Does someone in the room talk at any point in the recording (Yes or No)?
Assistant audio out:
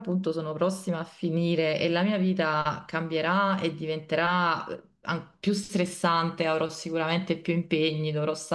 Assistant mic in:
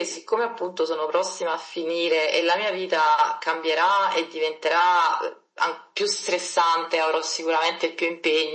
No